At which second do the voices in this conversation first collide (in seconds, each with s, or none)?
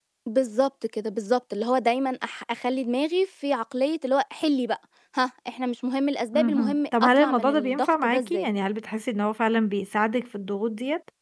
6.3 s